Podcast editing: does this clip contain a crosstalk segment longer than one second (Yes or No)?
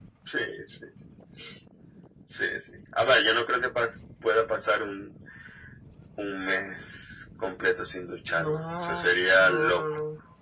Yes